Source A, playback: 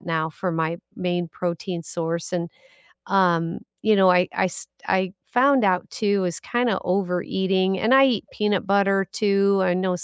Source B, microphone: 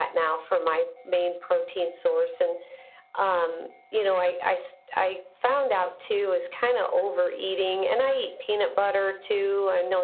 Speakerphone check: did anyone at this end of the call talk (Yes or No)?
No